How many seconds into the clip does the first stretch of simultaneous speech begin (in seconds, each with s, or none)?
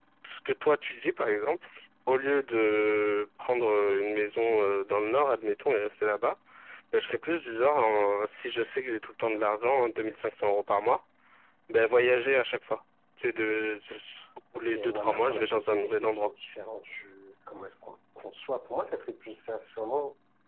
14.6 s